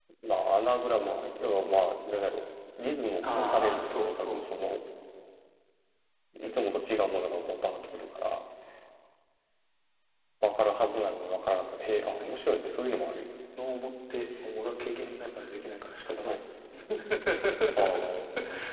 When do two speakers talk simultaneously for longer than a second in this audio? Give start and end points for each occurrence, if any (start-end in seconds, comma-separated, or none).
3.2-4.5